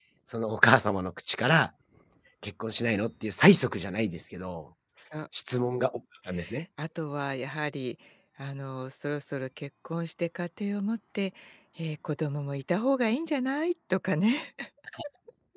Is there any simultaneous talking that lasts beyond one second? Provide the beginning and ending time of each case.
none

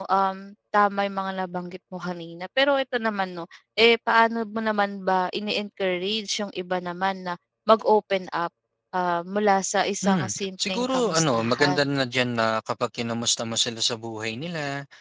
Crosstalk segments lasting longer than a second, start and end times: 10.0-11.9

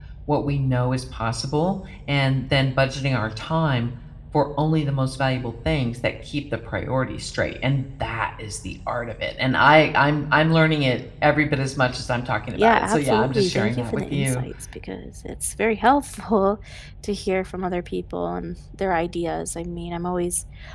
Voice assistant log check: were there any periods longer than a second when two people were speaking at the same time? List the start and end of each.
12.6-14.4

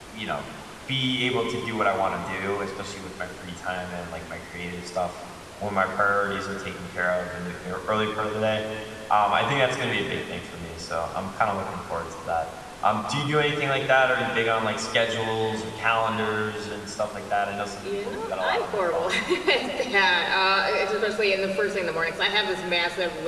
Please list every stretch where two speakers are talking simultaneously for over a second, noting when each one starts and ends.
17.8-19.1

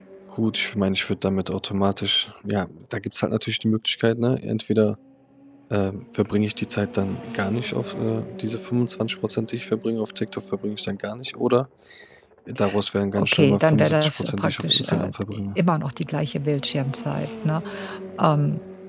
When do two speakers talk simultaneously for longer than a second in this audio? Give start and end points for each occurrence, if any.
13.1-15.1

